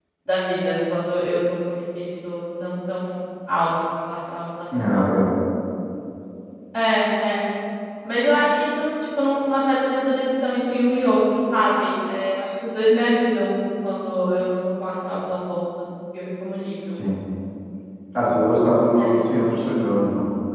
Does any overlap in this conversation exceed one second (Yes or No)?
No